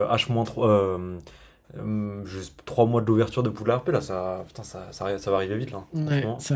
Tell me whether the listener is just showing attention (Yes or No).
No